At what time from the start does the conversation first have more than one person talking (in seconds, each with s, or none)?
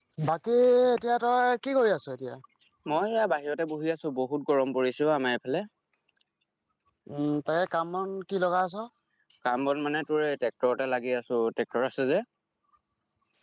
none